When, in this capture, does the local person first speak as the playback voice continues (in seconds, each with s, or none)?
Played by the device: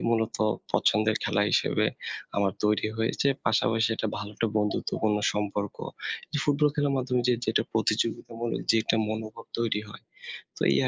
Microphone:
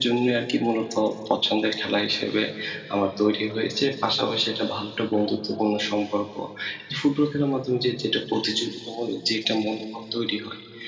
none